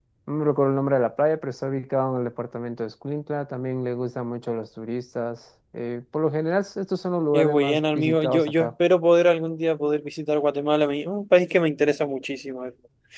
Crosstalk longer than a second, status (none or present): present